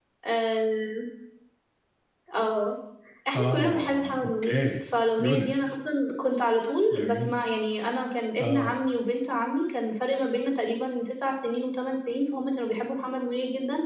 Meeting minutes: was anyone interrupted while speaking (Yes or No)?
Yes